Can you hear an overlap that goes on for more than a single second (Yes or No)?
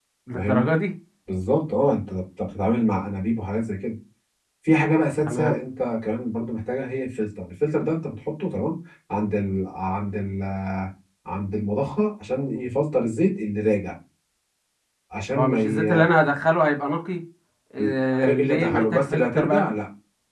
Yes